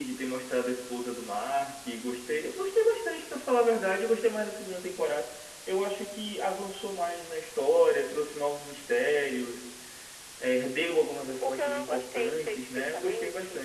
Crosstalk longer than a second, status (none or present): present